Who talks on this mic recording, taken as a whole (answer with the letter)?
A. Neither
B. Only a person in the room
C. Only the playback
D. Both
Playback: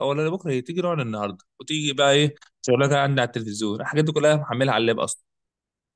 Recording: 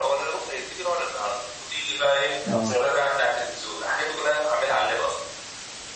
D